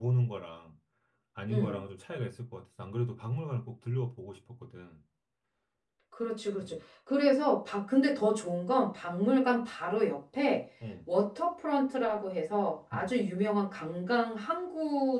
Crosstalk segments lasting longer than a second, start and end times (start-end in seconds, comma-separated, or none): none